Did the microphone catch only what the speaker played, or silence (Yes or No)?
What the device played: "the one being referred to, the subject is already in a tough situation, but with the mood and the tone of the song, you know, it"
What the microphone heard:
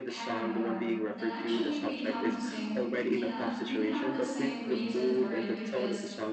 No